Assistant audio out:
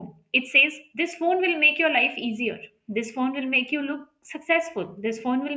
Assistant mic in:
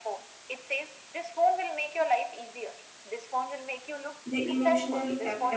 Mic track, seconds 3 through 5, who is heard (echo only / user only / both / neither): both